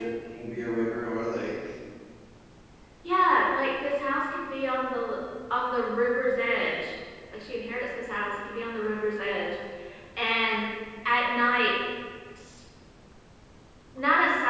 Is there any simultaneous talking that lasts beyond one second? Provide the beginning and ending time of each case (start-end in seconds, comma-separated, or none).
none